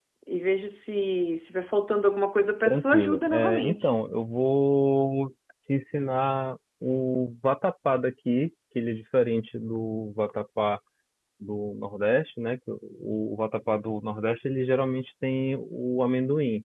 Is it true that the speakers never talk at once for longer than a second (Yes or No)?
No